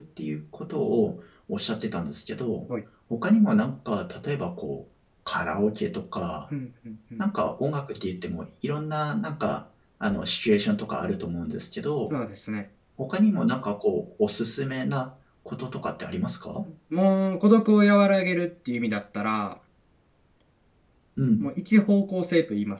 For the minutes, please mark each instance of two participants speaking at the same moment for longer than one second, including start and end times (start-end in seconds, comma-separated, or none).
none